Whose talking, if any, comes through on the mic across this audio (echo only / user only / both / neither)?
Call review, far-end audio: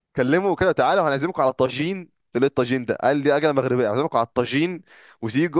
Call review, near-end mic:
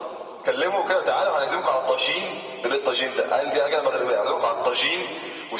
echo only